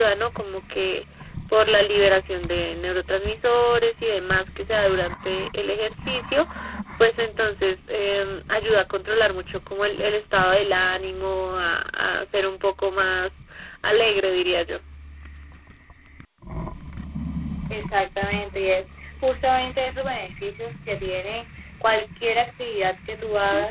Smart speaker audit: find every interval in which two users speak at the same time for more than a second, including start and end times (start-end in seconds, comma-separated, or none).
none